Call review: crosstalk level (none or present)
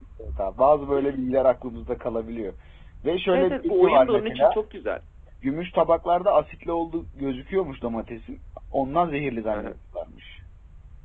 present